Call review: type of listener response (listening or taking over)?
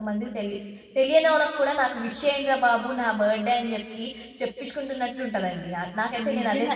taking over